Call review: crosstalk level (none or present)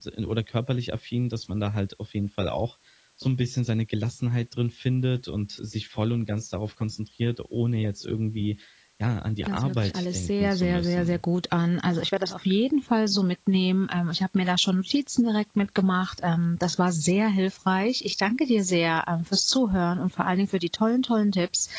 present